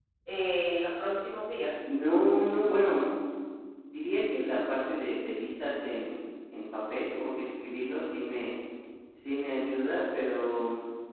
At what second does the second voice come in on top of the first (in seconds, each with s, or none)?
none